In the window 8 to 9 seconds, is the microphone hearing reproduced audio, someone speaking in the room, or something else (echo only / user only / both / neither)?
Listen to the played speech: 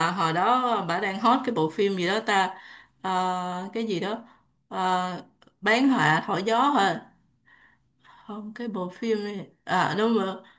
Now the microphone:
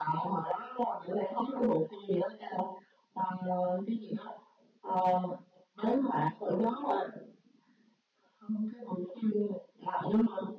echo only